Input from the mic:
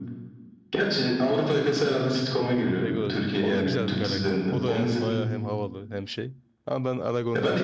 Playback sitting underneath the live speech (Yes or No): No